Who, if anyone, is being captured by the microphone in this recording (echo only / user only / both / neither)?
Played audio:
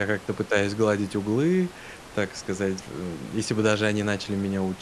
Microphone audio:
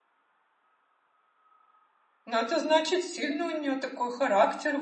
user only